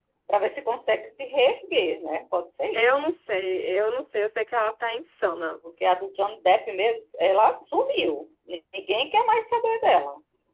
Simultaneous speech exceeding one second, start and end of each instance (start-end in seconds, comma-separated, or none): none